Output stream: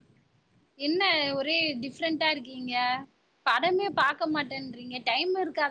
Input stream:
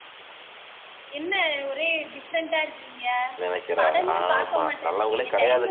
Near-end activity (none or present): present